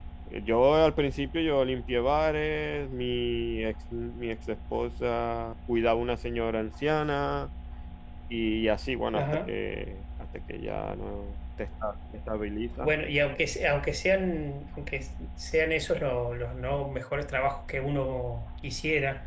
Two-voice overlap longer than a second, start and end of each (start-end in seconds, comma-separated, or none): none